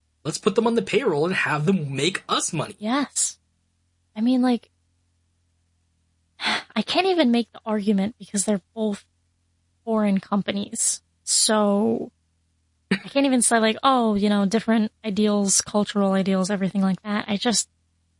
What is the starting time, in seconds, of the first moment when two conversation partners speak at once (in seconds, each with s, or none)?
none